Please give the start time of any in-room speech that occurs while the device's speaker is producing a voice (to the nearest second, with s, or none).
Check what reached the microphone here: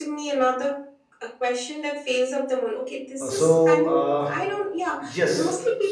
3 s